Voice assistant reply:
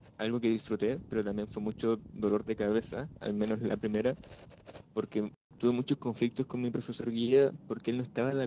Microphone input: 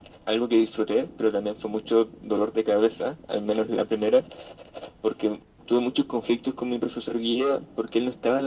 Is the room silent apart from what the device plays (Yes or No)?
Yes